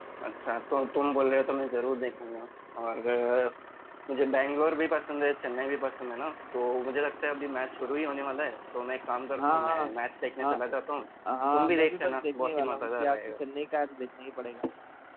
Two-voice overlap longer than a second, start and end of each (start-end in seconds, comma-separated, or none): 11.5-13.4